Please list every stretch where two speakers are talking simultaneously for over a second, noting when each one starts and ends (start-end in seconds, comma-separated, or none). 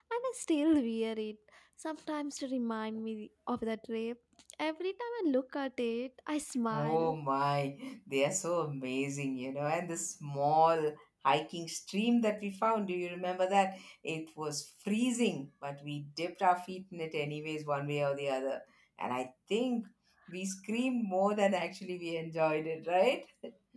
none